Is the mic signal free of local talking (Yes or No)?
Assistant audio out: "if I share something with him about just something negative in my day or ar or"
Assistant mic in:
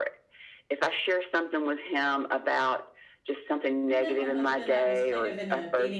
No